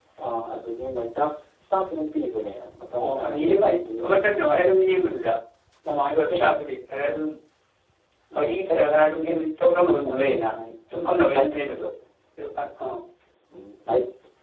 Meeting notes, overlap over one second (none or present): present